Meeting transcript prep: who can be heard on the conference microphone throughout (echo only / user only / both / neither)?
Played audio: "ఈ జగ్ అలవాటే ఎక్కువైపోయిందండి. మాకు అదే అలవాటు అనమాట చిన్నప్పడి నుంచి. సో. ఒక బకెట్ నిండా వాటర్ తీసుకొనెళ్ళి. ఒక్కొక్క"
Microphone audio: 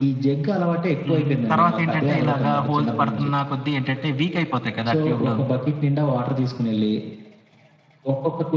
both